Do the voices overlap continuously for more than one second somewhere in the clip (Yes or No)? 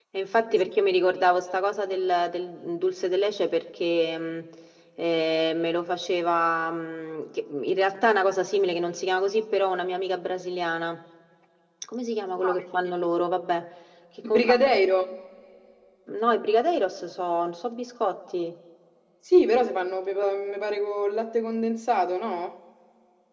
No